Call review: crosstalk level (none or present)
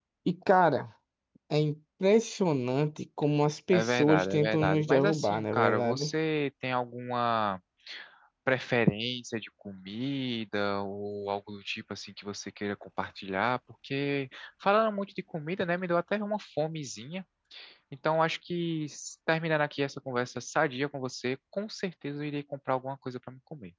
present